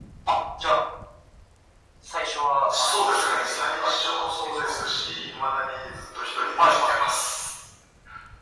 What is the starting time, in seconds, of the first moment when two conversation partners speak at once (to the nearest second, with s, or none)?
3 s